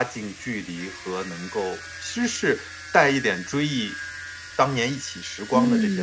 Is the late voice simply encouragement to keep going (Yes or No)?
No